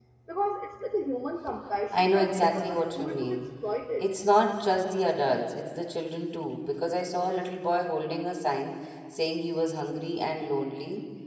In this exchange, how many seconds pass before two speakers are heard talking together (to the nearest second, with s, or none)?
2 s